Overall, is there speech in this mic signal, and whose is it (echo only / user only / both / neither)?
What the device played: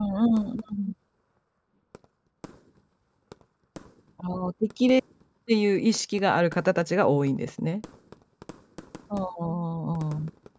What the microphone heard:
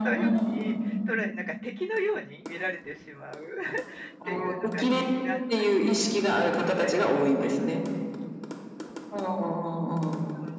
both